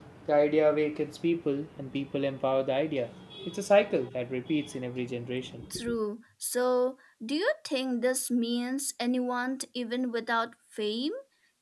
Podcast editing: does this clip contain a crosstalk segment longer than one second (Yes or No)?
No